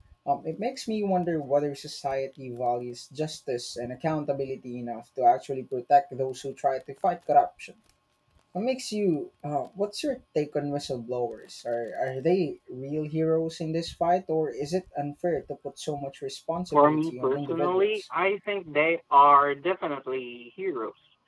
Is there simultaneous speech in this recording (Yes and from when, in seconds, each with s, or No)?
Yes, from 16.7 s